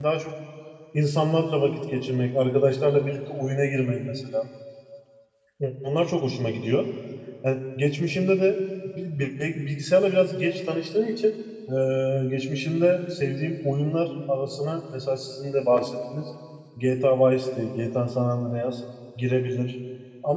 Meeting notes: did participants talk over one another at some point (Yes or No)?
No